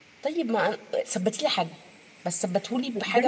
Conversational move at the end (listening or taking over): taking over